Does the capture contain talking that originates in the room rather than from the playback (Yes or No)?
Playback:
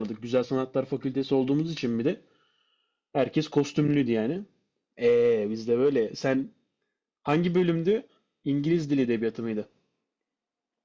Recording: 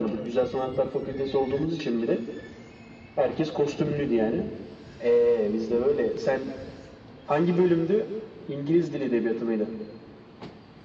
No